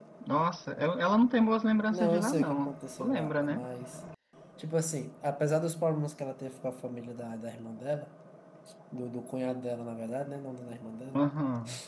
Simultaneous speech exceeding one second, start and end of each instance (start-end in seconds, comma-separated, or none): 1.9-3.6